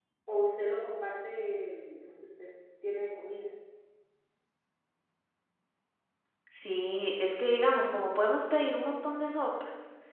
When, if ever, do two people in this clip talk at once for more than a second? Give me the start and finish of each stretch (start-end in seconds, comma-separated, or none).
none